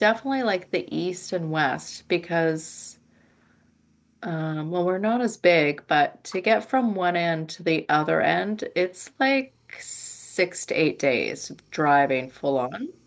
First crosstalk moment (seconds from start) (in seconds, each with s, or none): none